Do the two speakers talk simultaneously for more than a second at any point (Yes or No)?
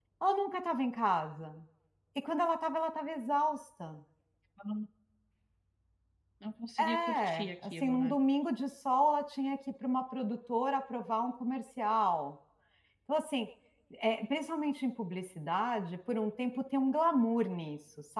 Yes